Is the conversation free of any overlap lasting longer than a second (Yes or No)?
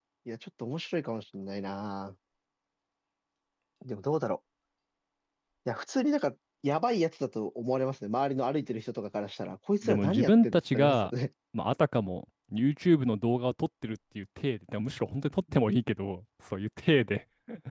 No